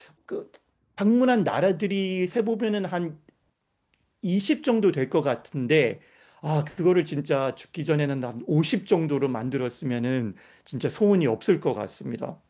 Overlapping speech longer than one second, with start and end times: none

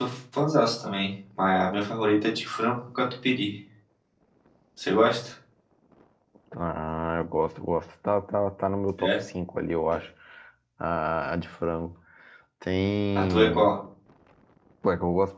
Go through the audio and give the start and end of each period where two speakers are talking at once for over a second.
none

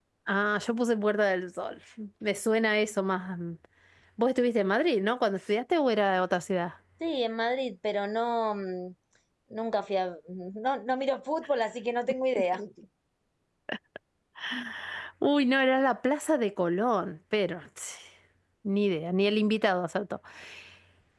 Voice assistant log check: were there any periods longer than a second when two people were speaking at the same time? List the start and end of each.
none

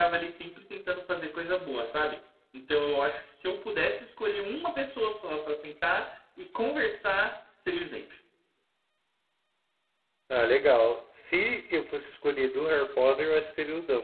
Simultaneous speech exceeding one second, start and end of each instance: none

